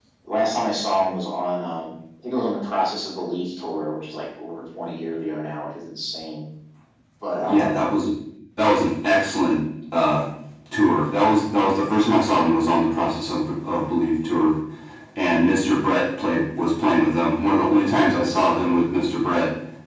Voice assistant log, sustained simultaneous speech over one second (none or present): none